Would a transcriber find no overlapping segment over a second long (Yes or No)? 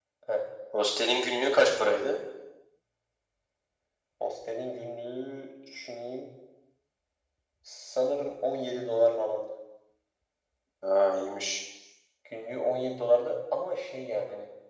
Yes